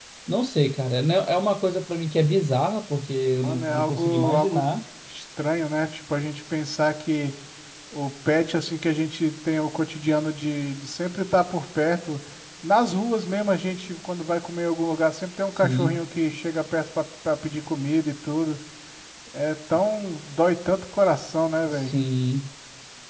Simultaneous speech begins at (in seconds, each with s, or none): 3.4 s